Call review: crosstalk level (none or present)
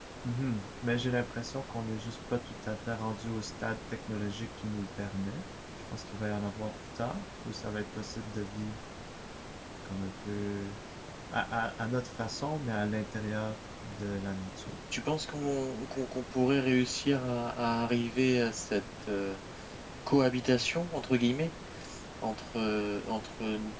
none